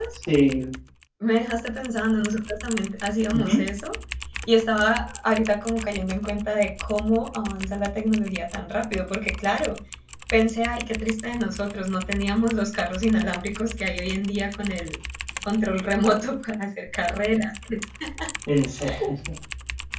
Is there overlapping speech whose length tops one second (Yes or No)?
No